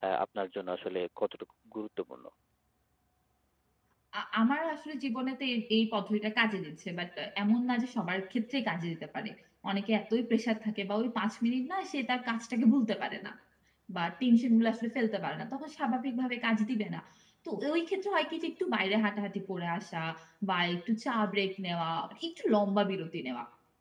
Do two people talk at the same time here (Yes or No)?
No